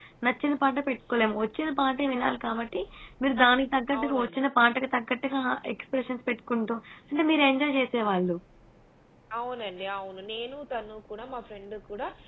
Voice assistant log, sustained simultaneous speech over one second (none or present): none